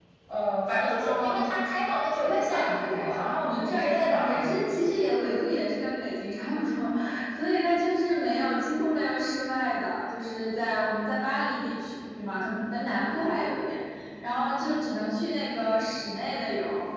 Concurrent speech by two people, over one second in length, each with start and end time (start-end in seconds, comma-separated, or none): 2.1-4.6